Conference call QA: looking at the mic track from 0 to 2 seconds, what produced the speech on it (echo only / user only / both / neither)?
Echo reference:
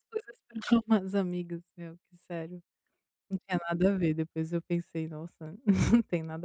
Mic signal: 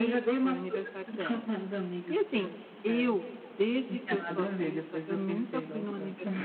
both